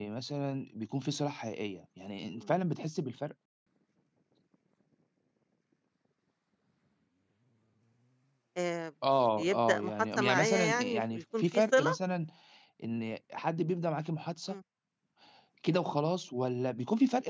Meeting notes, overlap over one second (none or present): present